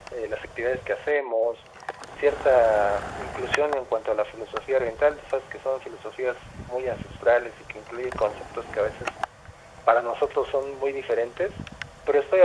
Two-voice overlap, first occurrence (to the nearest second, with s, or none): none